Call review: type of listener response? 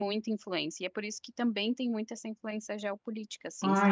taking over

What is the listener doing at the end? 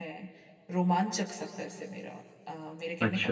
taking over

